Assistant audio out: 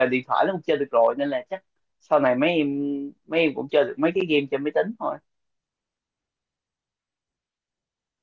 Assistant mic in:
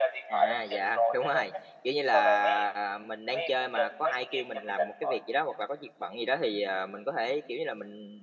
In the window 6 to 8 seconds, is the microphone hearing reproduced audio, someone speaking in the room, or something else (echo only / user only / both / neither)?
user only